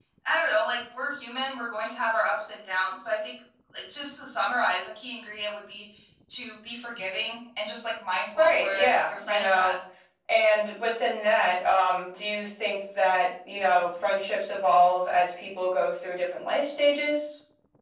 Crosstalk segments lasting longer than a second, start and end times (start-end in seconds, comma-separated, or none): 8.4-9.7